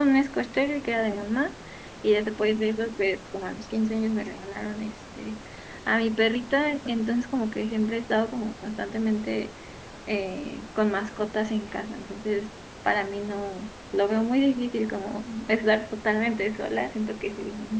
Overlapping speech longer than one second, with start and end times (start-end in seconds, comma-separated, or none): none